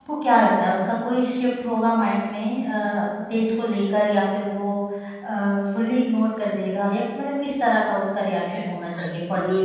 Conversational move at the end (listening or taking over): taking over